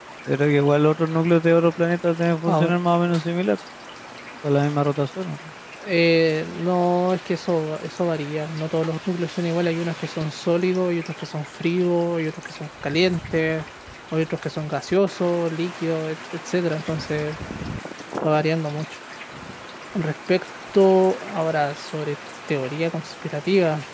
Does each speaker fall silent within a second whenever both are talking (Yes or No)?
Yes